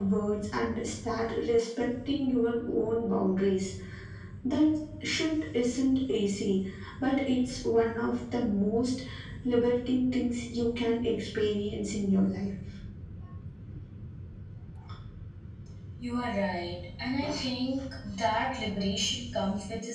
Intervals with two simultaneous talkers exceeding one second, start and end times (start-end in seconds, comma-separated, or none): none